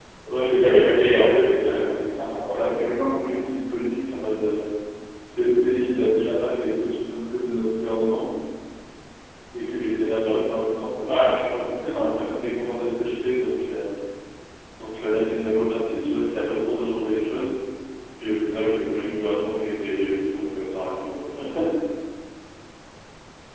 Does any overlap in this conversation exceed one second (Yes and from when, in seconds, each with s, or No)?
Yes, from 0.6 s